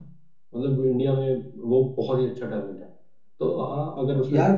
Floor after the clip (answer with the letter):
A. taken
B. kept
B